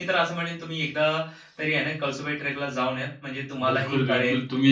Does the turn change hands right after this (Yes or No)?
Yes